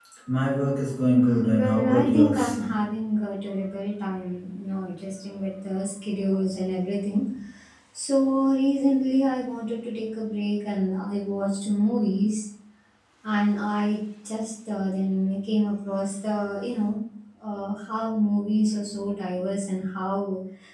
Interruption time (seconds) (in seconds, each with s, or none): 1.3 s